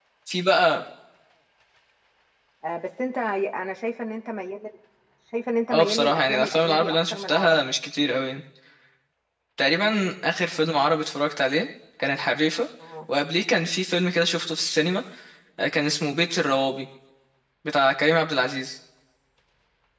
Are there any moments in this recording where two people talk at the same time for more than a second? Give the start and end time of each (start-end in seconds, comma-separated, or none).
5.7-7.7